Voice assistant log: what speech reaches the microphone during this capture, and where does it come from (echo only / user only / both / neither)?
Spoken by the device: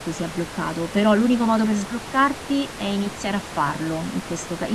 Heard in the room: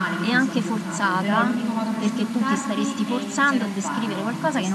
both